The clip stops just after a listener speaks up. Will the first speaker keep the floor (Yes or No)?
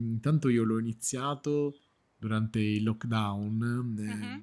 Yes